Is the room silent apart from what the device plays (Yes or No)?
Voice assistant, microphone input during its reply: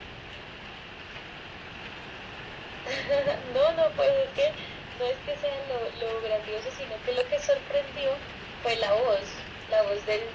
Yes